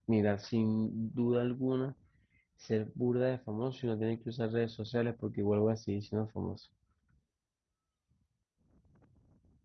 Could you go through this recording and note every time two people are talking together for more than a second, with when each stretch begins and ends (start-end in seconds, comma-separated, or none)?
none